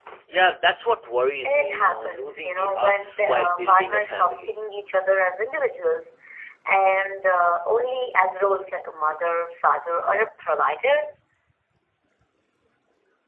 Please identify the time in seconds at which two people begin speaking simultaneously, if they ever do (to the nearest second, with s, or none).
1 s